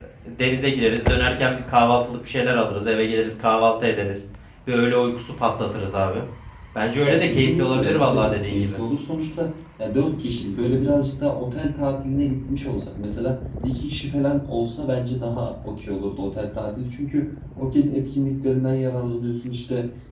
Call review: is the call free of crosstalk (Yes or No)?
No